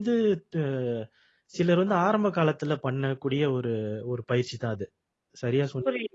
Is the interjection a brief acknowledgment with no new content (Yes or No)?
No